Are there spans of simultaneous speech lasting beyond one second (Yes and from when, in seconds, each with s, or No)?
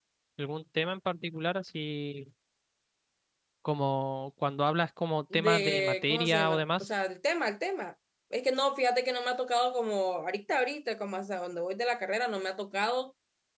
Yes, from 5.3 s